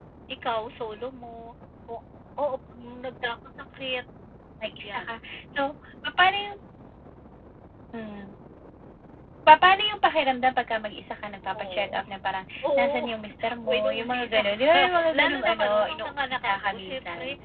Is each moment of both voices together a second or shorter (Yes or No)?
No